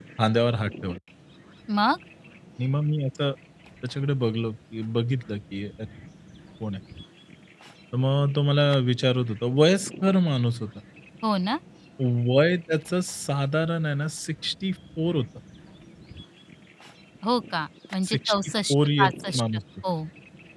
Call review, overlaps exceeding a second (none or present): present